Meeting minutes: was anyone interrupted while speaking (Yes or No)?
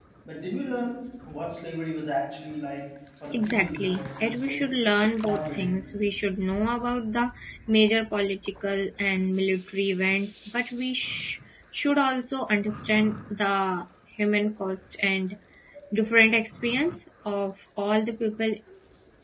Yes